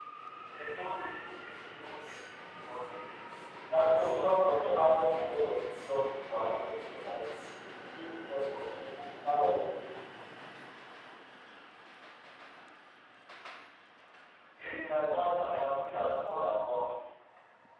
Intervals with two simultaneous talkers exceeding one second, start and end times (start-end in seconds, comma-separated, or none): 3.9-5.5